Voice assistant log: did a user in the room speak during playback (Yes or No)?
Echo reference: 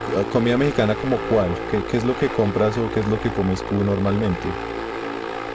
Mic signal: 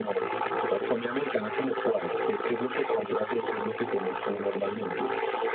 No